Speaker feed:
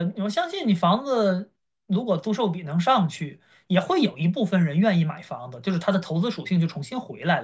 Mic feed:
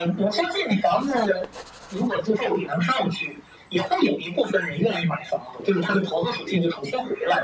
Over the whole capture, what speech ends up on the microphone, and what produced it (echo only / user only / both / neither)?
echo only